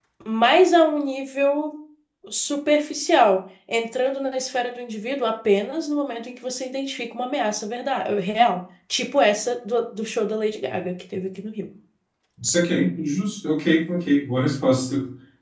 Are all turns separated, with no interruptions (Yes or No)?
Yes